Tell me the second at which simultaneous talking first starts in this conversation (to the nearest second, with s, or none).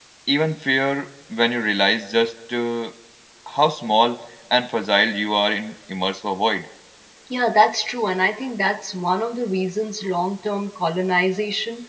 none